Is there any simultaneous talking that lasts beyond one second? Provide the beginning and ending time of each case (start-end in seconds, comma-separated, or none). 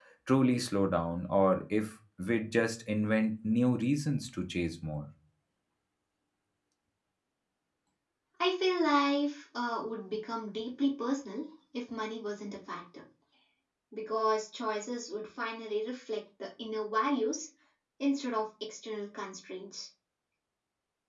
none